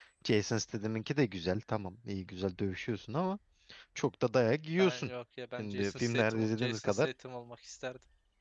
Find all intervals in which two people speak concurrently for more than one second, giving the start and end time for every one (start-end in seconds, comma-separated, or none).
5.6-7.1